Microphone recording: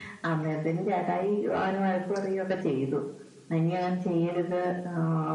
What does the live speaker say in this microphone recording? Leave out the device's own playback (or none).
none